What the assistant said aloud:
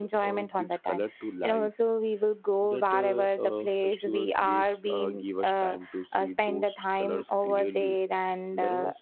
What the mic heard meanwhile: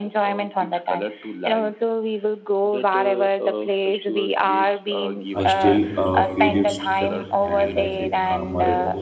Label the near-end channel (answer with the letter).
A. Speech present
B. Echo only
A